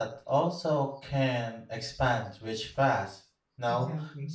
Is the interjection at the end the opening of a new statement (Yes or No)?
No